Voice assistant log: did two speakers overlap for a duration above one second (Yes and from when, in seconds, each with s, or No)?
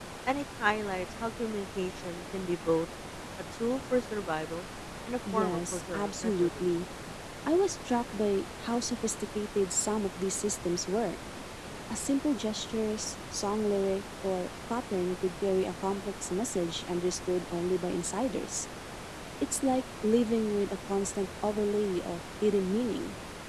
Yes, from 5.3 s